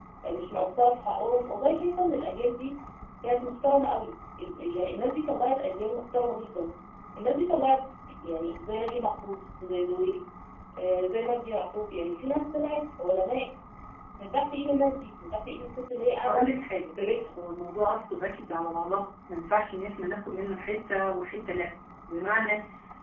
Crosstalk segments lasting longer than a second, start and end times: none

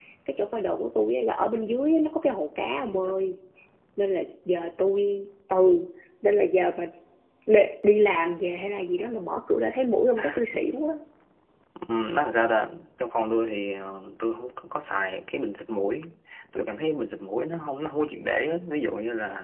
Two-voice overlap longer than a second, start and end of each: none

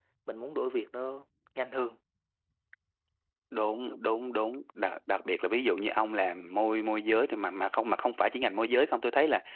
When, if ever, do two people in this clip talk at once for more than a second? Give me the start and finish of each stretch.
none

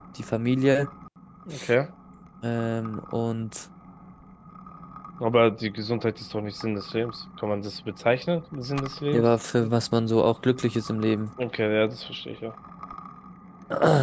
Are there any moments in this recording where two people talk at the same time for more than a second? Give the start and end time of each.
none

